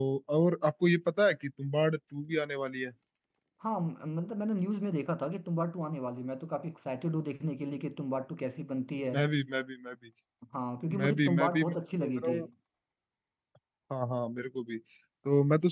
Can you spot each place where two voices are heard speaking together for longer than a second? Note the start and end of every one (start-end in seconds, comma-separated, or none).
11.0-12.4